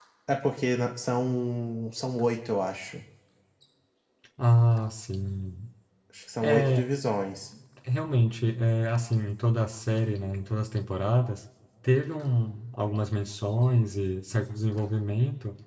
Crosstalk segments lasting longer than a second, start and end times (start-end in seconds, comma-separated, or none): none